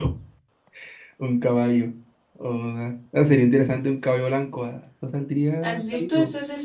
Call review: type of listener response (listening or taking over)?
taking over